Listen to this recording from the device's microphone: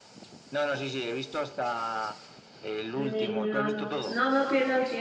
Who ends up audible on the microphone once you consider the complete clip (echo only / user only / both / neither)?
both